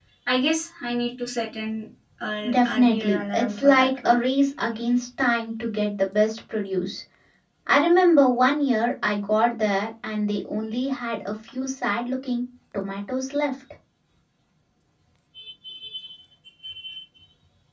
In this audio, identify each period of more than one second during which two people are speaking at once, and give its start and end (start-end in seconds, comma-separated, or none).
2.5-4.2